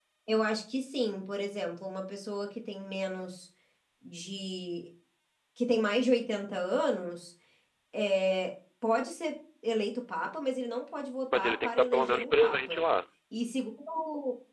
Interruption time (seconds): 11.3 s

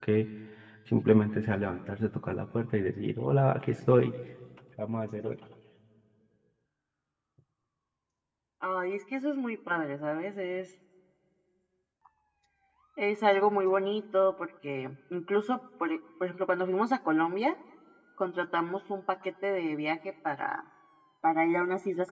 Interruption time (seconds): none

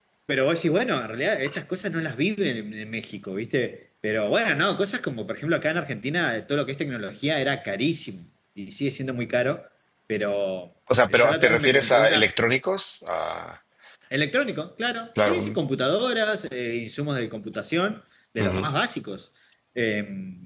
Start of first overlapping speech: 11.1 s

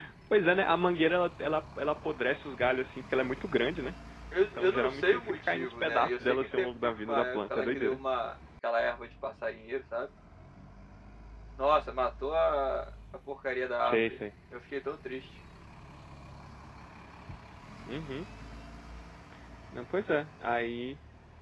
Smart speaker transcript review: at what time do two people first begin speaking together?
4.4 s

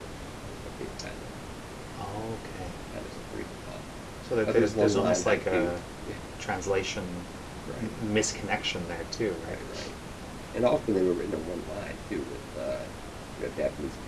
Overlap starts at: 4.5 s

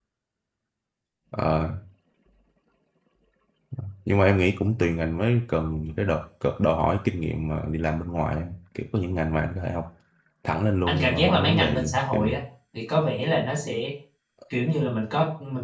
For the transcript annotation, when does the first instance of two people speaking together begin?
10.9 s

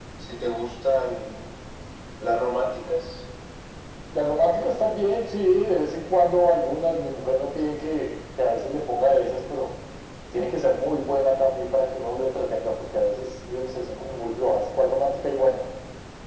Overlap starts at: none

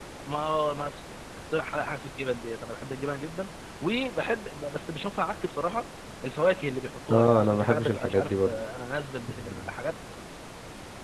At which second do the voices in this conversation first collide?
7.1 s

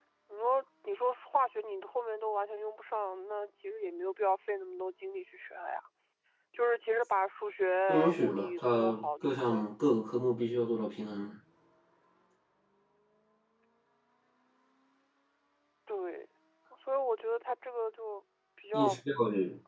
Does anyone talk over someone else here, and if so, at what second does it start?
7.9 s

